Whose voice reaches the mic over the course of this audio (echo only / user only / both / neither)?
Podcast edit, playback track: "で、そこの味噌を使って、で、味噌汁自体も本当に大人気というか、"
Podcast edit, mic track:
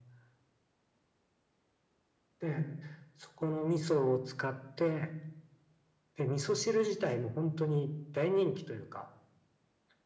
echo only